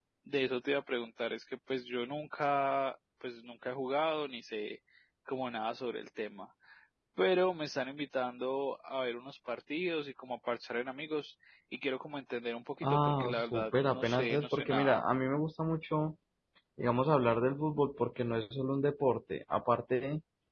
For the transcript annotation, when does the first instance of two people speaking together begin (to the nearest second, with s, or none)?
13 s